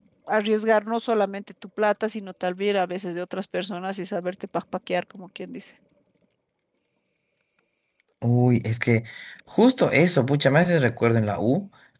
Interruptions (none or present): none